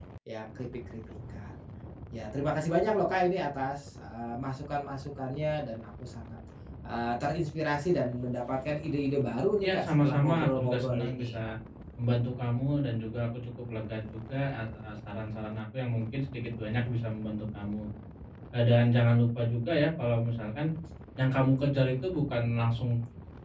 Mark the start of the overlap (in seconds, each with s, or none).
9.6 s